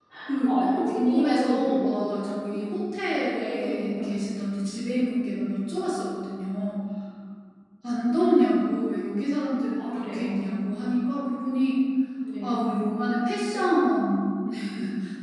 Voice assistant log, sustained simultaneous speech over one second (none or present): present